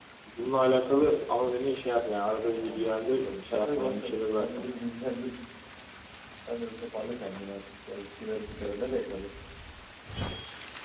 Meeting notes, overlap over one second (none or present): present